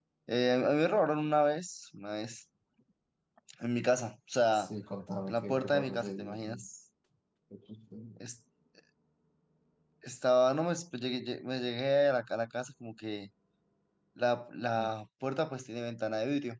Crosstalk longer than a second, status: present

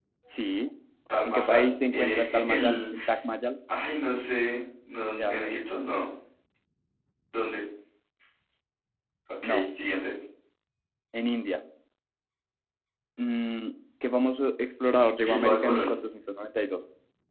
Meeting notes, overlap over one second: present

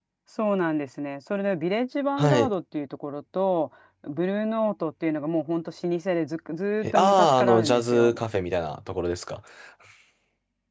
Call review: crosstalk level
present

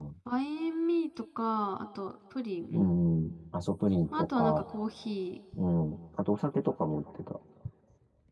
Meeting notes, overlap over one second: none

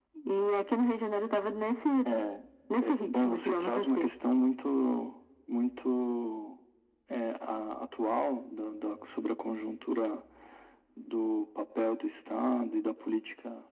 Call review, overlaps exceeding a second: present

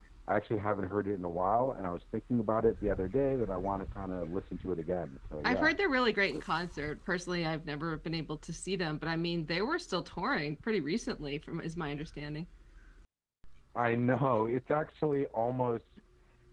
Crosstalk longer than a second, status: none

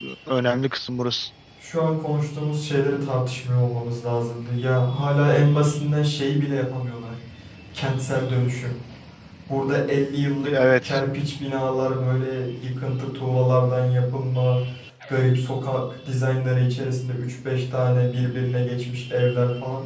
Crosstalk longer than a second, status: none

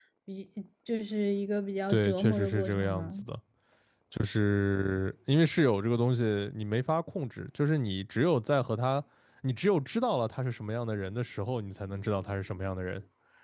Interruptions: present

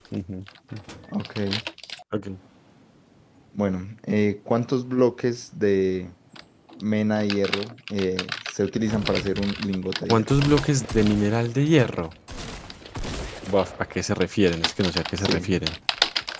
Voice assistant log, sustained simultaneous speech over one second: none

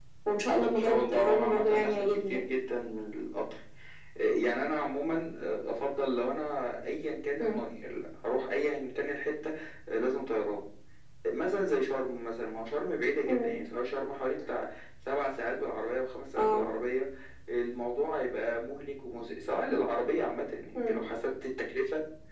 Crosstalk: present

